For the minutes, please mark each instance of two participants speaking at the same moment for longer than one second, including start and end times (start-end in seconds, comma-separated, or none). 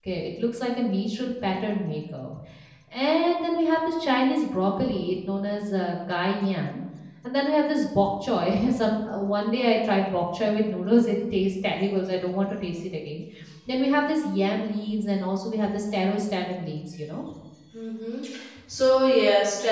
none